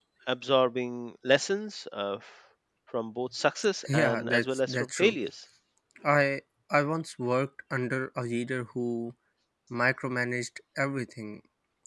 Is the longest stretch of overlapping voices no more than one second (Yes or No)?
No